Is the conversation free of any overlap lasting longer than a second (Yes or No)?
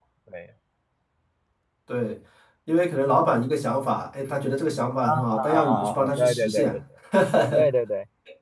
No